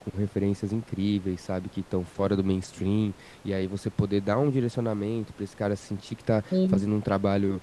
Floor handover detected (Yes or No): No